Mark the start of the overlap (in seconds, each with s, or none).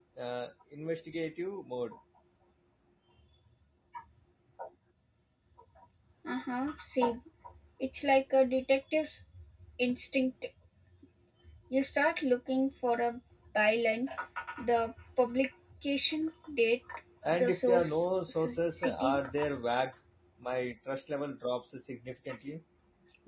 17.3 s